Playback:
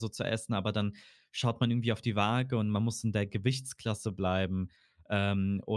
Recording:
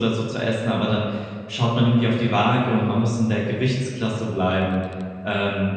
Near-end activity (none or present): none